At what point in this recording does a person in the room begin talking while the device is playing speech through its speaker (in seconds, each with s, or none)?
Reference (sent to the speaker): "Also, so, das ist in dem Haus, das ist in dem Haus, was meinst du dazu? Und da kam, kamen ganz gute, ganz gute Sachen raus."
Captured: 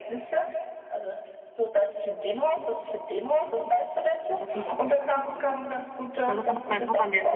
4.3 s